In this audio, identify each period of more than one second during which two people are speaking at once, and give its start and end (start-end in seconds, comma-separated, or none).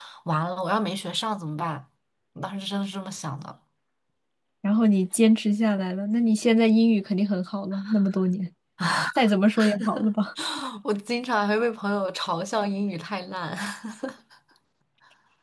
none